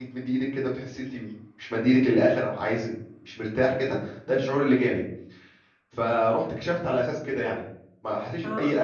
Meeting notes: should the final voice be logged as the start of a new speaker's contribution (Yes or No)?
No